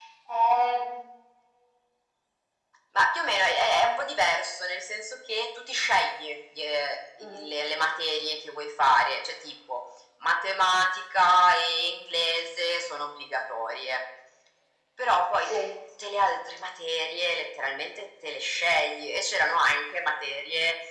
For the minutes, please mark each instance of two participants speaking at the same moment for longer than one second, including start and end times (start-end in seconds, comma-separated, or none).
none